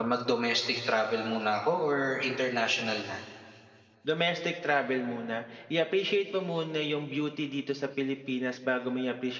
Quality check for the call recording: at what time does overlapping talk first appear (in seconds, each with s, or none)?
none